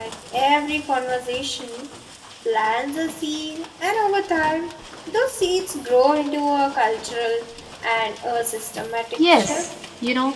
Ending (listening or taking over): taking over